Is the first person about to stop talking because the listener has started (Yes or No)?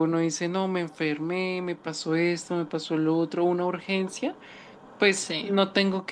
No